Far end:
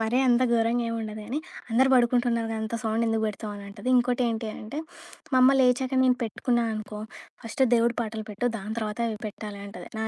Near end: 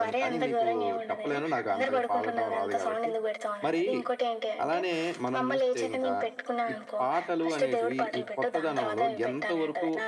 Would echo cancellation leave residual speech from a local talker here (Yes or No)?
Yes